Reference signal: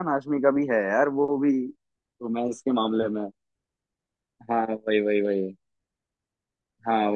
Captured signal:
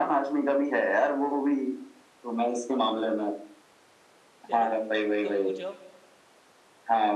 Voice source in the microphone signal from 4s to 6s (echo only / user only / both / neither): both